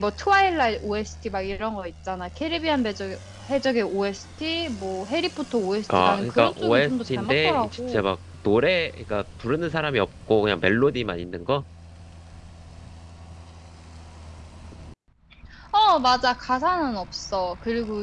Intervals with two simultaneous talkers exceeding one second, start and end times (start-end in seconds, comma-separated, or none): 6.0-8.0